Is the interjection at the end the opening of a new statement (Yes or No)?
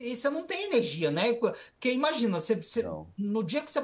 No